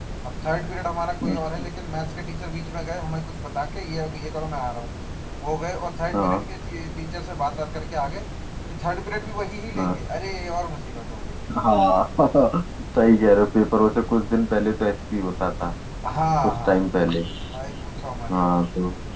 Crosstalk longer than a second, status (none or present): none